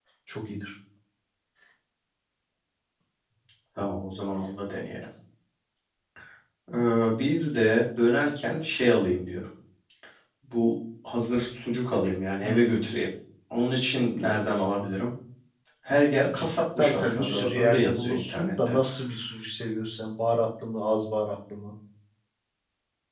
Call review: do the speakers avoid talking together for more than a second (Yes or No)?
No